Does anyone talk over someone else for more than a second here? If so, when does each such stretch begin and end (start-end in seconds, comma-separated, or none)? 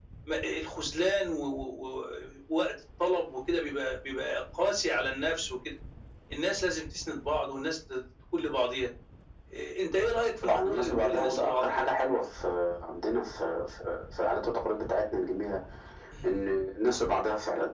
10.4-11.9